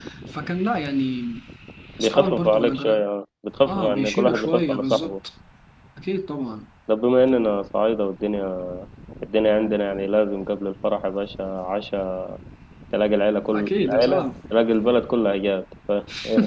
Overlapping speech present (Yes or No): Yes